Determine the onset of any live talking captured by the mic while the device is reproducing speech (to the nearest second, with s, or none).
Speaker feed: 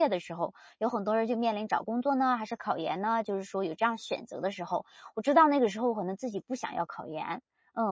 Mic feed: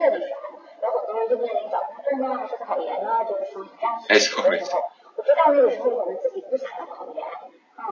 4 s